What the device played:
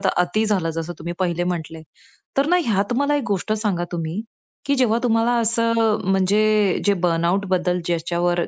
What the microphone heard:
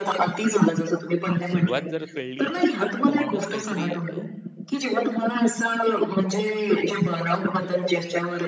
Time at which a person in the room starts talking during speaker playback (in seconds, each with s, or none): 1.5 s